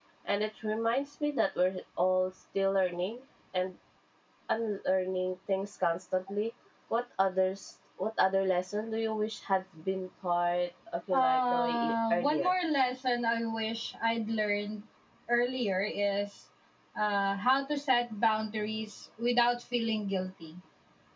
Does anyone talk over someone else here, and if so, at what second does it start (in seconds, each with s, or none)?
11.1 s